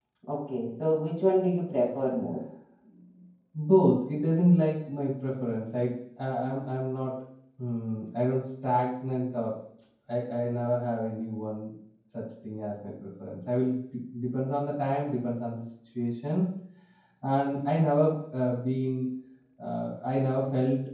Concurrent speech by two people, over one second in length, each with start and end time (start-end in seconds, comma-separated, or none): none